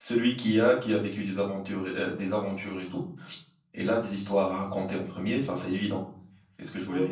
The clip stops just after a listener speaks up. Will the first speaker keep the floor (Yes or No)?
No